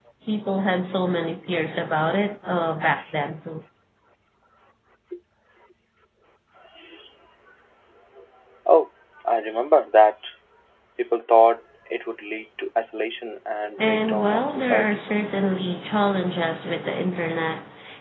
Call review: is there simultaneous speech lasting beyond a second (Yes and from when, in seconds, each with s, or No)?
Yes, from 13.8 s